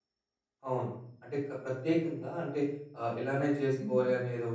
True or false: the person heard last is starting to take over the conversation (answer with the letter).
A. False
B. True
A